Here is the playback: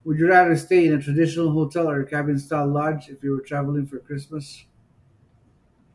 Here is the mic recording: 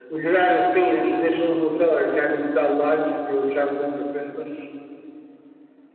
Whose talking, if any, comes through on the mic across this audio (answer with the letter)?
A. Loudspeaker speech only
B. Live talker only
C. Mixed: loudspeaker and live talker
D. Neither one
A